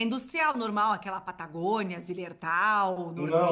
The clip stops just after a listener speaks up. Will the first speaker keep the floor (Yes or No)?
No